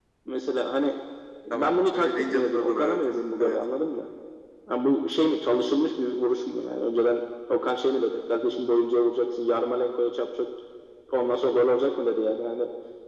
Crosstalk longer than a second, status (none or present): present